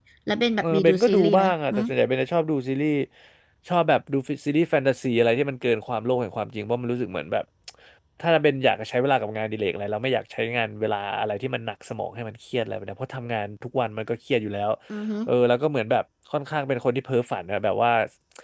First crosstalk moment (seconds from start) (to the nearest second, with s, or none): 1 s